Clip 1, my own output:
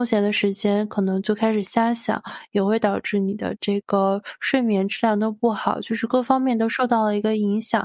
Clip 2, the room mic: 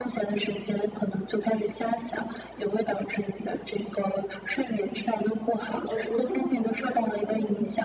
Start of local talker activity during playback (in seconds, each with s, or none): 5.8 s